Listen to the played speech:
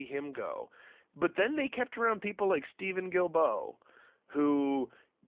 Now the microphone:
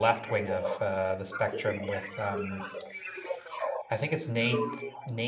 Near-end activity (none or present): present